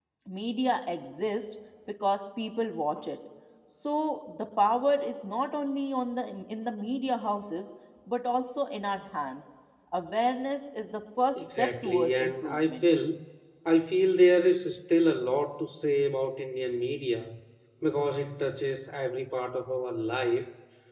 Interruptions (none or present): present